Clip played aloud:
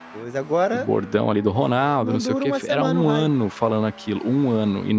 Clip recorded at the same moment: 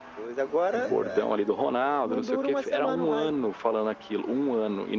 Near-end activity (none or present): present